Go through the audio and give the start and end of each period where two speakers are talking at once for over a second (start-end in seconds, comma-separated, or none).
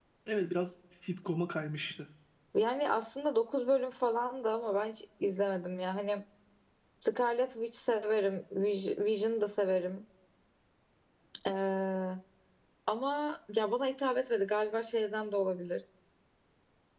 none